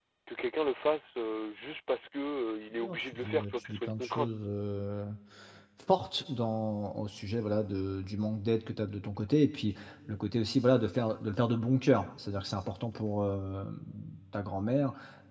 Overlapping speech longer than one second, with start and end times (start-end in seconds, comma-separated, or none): 2.8-4.3